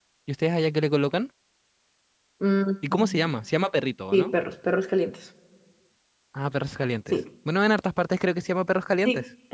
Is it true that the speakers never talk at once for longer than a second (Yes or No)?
Yes